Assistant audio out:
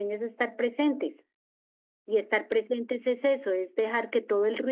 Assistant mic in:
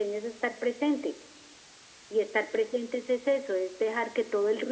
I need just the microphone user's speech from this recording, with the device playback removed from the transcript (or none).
none